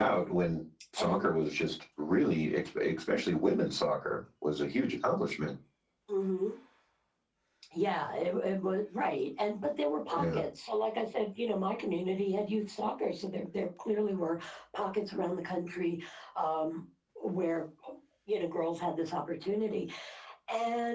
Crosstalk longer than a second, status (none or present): none